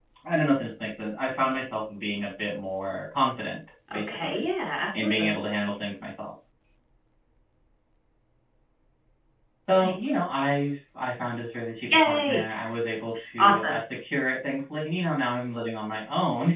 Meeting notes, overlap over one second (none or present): none